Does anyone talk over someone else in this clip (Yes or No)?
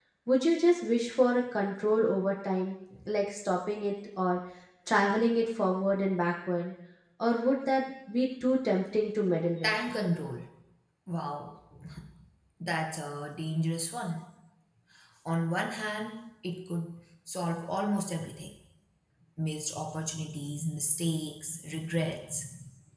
No